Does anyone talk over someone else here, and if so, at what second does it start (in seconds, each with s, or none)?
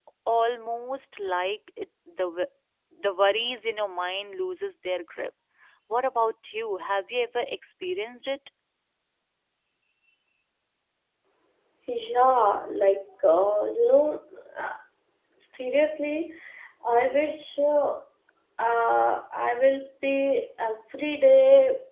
none